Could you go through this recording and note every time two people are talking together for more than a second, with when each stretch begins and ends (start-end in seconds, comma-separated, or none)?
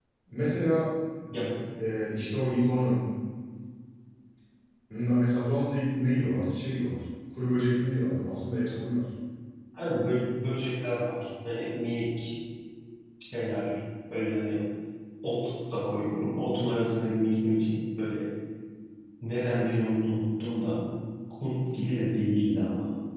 none